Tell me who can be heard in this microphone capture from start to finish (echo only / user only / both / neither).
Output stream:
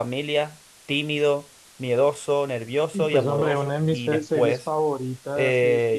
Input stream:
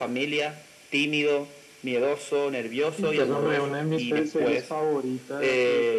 echo only